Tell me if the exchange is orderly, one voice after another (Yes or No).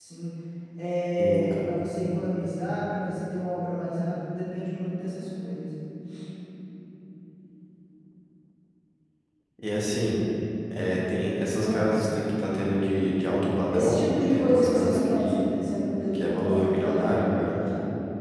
No